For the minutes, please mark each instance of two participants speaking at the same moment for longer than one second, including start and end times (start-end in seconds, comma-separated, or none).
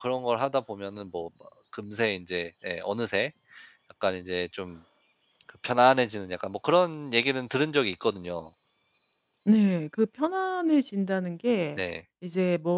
none